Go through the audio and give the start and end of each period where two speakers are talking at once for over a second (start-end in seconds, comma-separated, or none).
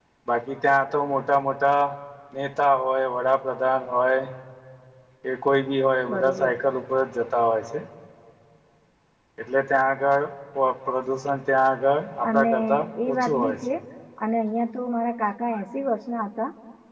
12.3-13.6